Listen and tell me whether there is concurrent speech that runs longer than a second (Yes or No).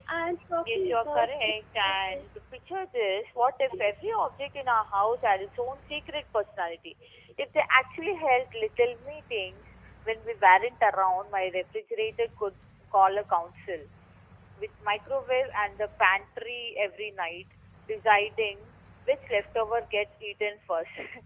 Yes